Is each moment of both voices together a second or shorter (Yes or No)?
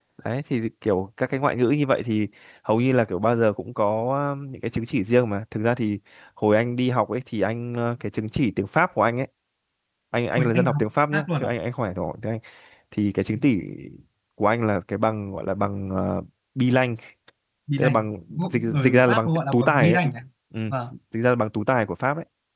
No